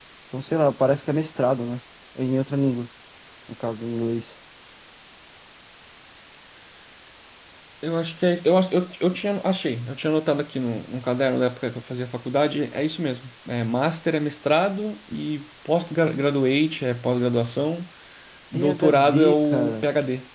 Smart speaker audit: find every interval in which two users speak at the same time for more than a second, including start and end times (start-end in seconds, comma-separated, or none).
18.5-19.9